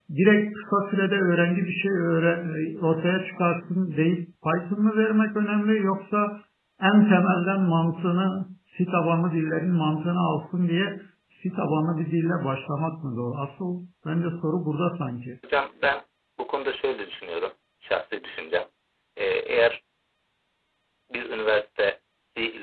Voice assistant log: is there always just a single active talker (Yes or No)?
Yes